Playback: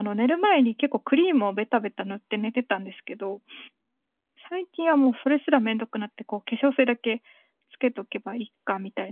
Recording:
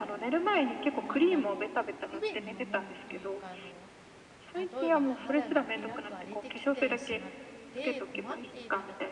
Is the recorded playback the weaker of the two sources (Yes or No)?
No